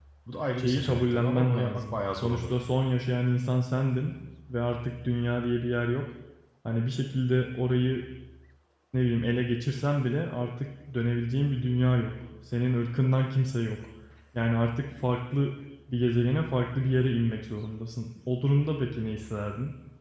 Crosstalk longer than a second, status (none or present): present